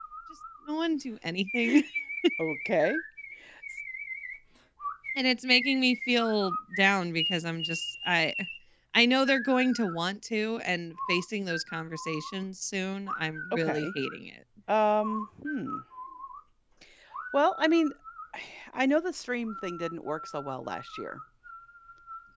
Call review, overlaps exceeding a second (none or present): none